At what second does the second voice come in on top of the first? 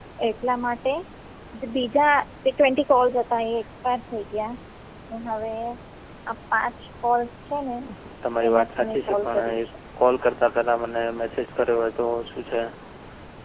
8 s

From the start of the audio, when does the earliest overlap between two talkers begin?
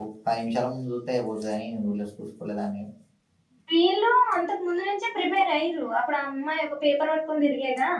none

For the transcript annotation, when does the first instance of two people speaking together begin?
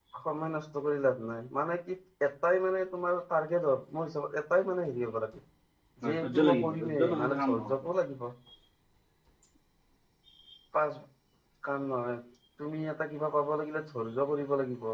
6 s

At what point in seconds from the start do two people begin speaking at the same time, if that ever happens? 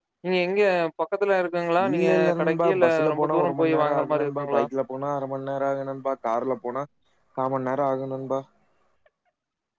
2 s

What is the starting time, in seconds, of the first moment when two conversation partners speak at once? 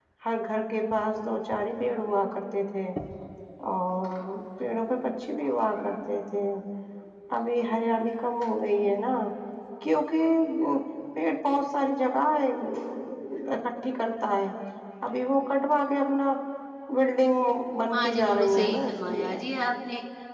18 s

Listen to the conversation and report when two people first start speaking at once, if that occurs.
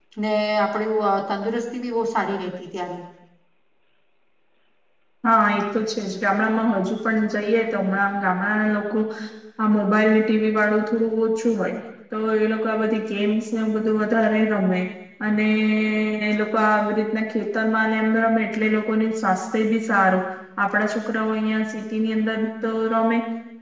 none

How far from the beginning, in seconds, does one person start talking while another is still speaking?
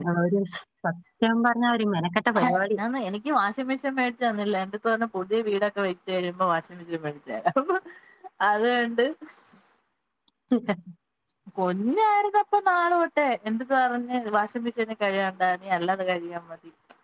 none

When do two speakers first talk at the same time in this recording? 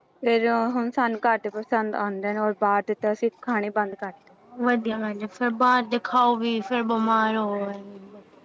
none

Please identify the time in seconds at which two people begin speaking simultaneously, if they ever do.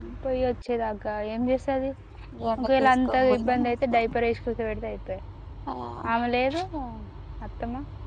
3 s

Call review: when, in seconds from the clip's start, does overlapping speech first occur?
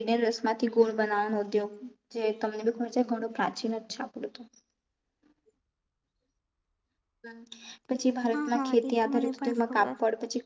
8 s

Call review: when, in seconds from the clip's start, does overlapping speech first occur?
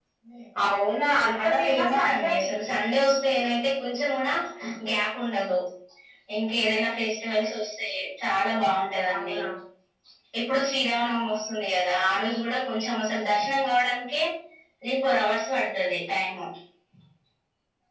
1 s

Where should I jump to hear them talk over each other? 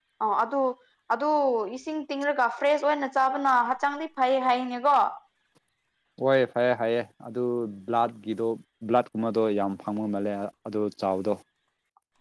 none

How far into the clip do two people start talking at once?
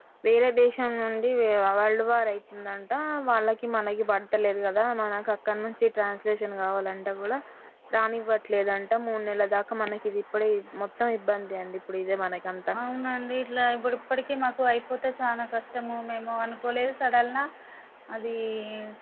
none

